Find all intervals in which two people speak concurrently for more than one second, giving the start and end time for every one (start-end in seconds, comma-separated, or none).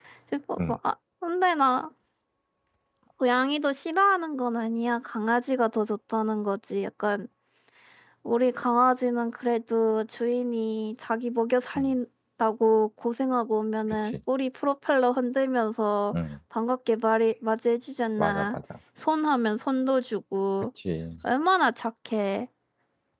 none